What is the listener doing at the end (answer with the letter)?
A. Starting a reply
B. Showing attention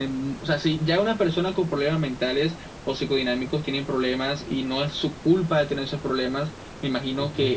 B